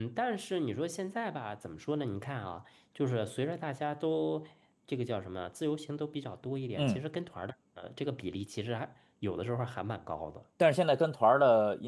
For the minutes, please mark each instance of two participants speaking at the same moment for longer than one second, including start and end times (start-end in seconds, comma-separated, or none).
none